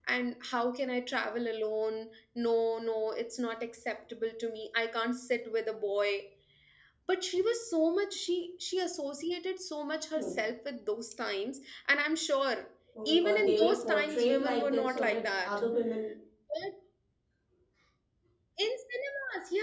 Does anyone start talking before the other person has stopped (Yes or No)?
Yes